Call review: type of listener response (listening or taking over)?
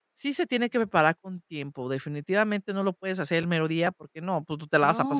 taking over